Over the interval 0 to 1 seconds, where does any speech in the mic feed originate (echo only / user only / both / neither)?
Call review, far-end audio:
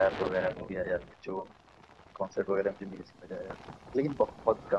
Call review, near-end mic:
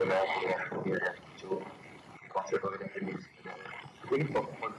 echo only